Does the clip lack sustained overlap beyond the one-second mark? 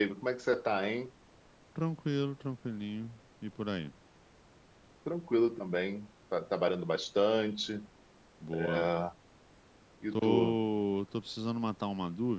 Yes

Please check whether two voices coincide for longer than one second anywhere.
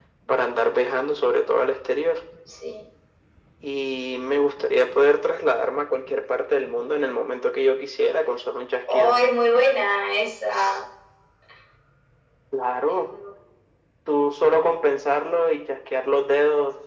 No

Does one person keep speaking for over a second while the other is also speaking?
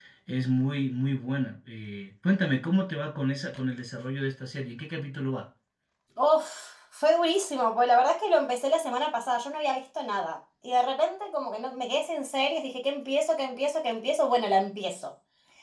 No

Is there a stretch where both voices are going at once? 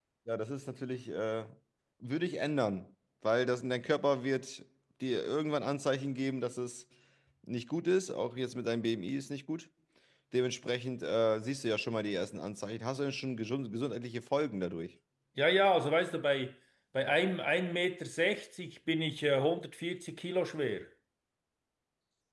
No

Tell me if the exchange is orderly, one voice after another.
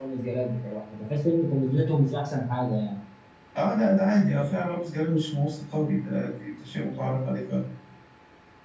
Yes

